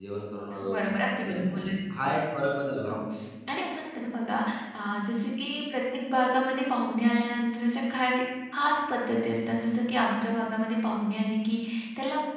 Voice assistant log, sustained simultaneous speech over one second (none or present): none